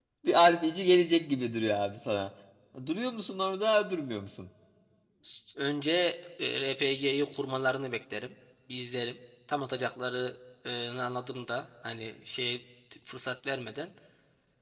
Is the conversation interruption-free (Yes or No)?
Yes